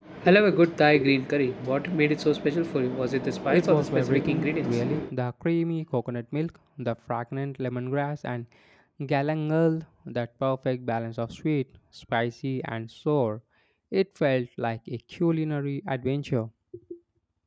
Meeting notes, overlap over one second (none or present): present